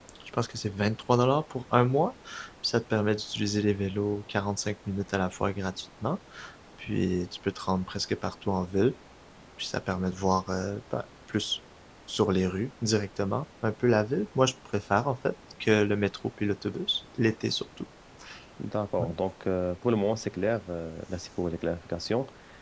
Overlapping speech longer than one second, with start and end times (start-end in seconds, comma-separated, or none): none